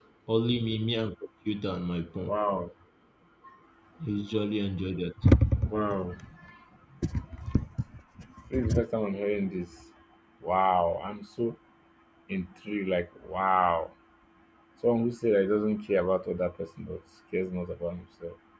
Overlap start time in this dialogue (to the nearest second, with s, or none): none